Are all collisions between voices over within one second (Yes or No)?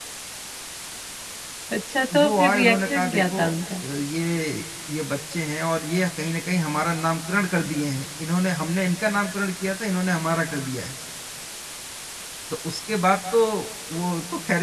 No